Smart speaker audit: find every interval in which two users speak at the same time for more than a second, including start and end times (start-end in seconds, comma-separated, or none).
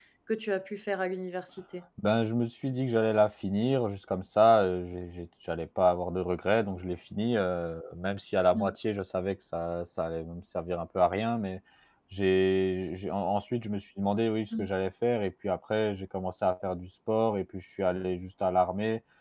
none